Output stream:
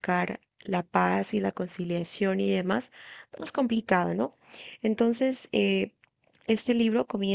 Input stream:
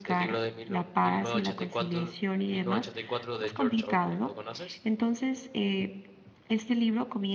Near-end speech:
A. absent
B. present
B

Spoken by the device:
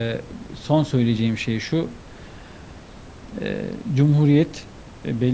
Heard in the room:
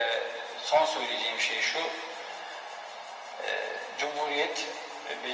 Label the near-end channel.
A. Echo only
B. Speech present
A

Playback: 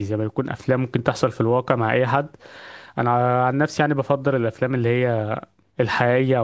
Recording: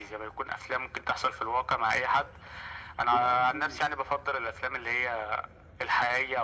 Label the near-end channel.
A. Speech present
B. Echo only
A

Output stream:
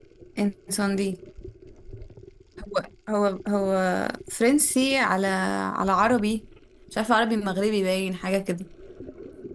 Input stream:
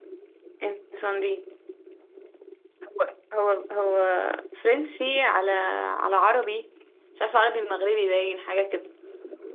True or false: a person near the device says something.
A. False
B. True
A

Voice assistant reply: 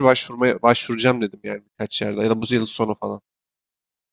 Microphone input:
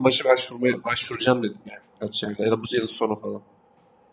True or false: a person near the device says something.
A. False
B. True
A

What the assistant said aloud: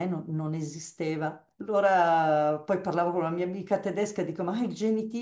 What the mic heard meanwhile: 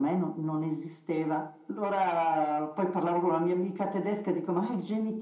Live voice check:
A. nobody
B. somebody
A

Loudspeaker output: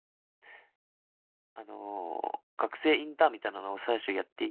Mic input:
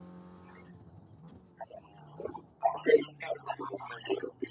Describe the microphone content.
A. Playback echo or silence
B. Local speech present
A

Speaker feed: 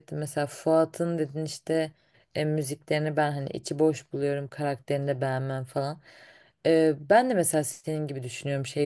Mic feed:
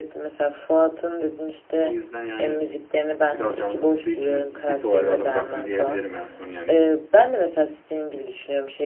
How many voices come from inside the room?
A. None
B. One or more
B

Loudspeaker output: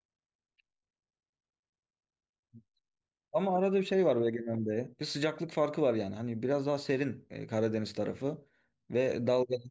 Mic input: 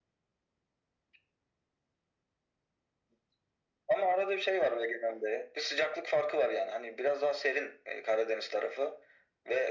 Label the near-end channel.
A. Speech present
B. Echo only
B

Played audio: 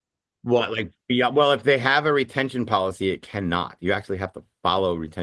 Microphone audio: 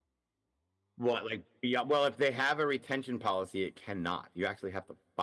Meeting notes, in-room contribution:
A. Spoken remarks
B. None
B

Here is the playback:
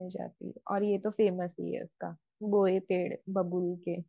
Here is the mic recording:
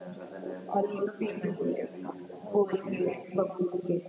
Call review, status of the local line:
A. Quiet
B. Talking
B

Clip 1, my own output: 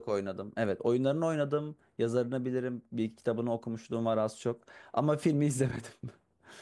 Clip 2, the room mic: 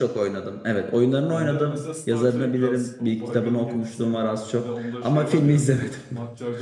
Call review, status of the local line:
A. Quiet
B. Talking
B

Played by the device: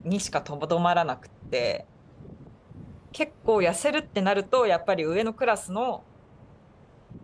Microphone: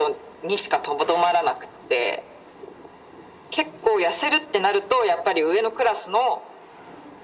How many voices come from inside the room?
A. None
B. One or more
A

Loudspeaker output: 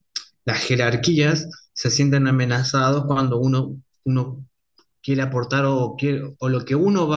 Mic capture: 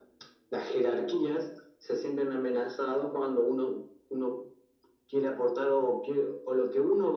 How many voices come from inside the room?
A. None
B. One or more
A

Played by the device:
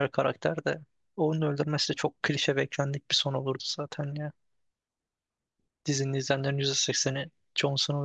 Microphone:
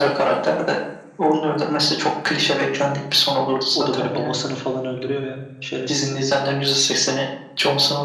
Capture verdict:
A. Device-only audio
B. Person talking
B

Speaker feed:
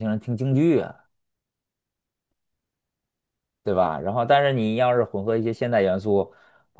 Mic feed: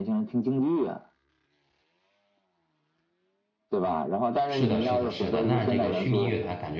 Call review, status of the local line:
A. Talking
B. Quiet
A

